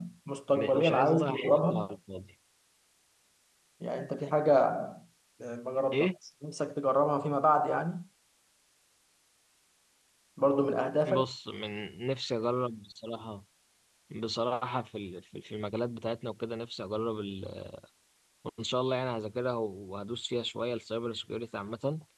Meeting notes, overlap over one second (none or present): present